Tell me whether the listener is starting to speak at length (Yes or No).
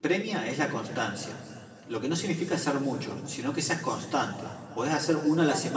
No